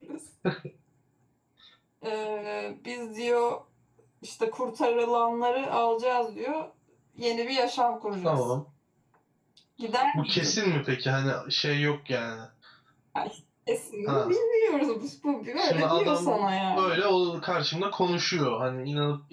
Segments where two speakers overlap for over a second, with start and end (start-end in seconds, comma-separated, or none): 15.6-17.0